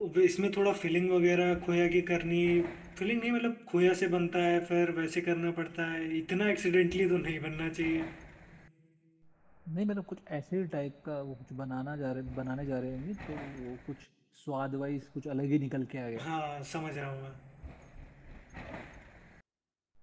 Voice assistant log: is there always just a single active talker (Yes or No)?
Yes